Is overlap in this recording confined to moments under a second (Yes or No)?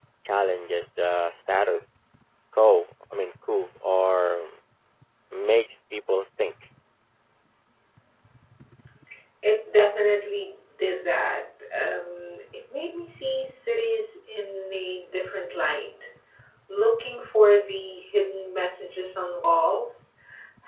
Yes